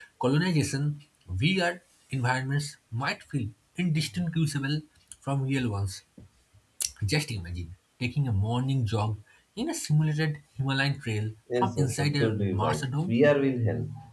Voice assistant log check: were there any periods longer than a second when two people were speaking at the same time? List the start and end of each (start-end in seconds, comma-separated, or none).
11.6-13.2